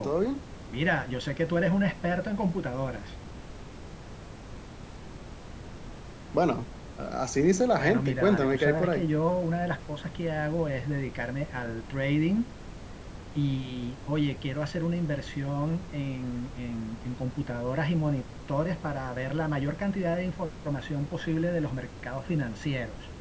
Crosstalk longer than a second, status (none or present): present